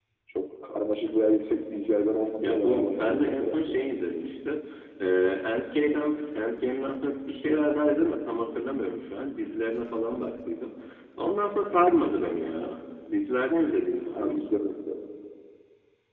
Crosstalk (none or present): present